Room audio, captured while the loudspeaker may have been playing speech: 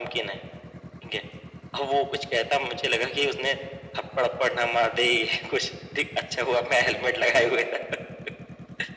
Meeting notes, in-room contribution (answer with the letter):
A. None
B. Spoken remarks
A